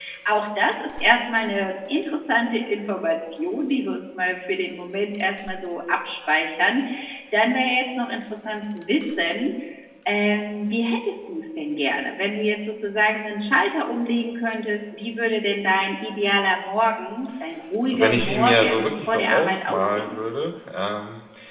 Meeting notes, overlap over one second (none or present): present